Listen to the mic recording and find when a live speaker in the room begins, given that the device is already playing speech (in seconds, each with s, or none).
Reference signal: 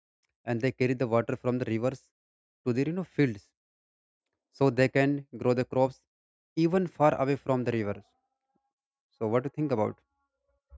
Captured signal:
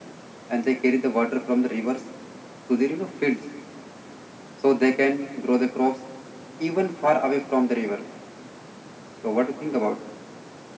none